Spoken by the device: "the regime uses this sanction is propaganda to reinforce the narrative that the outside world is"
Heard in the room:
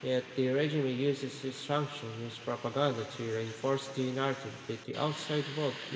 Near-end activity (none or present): none